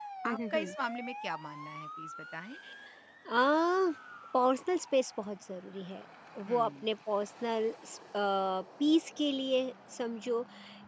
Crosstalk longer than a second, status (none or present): none